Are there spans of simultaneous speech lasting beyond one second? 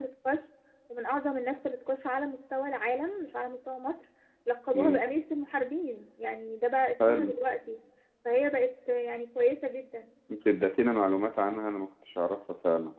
No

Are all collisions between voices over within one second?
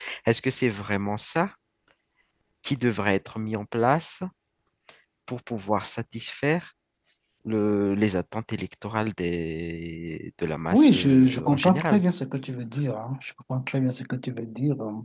No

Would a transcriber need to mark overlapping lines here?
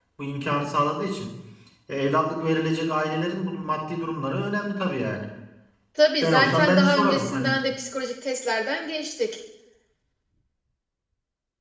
Yes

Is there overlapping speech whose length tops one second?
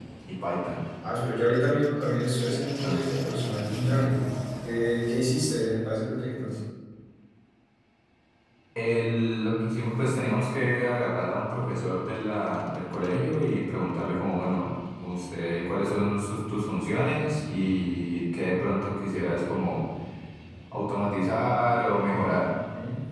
No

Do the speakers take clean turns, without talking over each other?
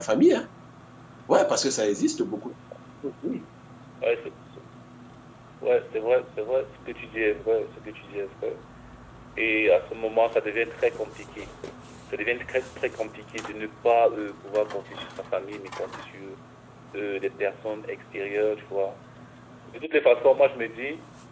Yes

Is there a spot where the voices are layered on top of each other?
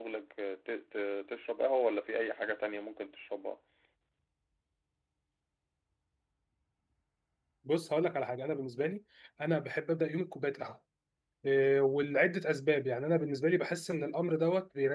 No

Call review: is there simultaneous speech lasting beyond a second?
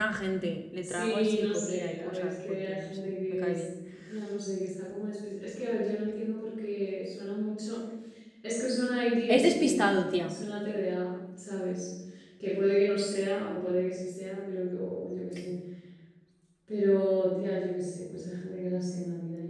Yes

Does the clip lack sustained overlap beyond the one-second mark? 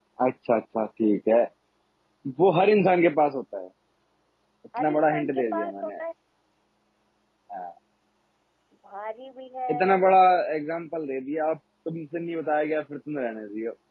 No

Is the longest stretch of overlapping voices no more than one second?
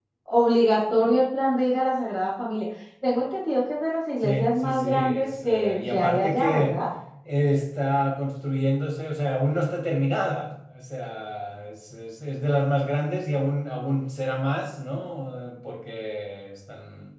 No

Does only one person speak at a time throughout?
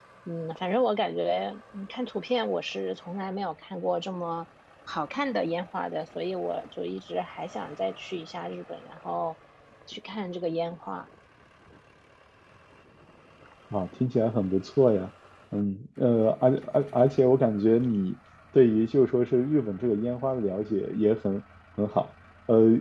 Yes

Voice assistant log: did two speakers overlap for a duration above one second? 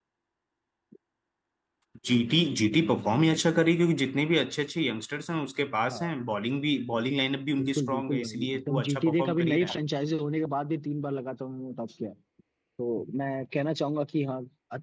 Yes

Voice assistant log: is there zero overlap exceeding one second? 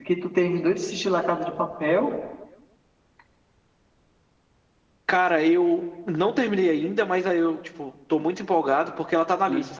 Yes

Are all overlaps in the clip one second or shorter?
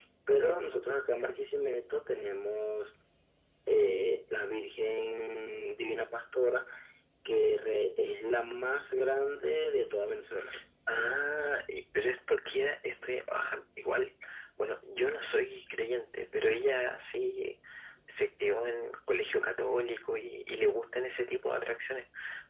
Yes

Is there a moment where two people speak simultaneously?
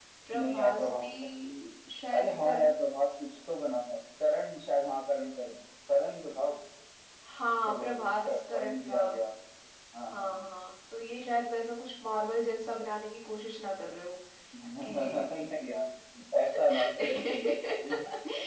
Yes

